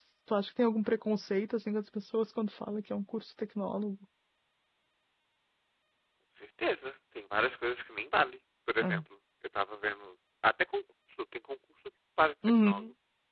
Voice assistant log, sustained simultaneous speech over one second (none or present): none